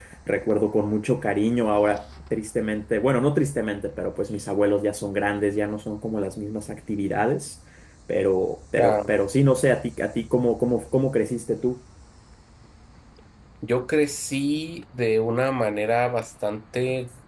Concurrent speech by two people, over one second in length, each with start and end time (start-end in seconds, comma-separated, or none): none